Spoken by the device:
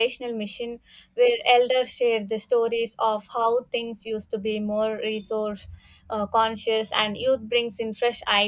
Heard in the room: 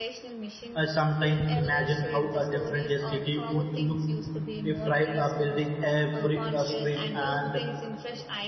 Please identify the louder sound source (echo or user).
user